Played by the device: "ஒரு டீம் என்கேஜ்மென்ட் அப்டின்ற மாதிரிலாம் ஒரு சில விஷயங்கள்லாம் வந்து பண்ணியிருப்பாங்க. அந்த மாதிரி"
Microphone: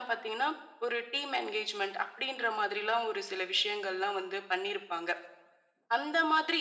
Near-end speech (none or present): none